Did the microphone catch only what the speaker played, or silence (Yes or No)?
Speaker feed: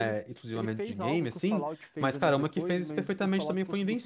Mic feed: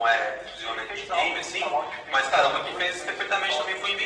Yes